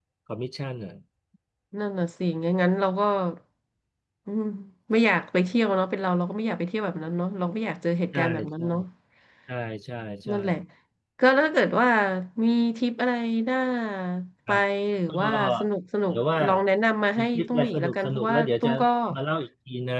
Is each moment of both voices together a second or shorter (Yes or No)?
No